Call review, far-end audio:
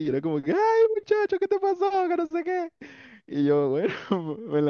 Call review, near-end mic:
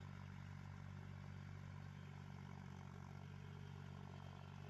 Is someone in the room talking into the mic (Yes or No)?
No